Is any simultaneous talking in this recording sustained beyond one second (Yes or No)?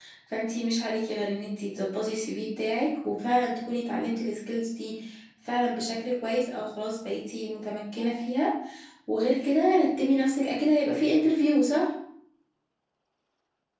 No